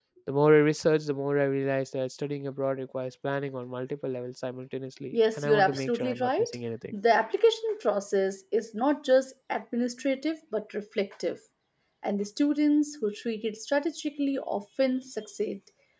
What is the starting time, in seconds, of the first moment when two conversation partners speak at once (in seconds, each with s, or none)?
5.1 s